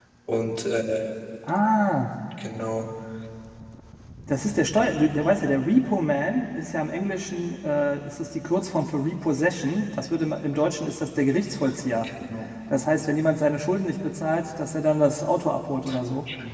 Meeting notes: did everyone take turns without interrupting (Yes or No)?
Yes